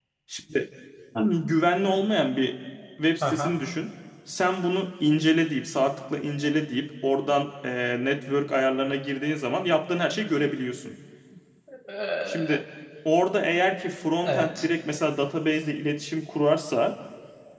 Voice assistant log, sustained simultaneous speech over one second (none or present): none